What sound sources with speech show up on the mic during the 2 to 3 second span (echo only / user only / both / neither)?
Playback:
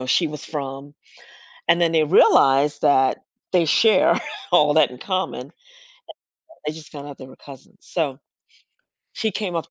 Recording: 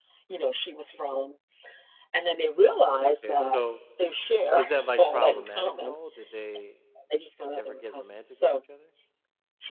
both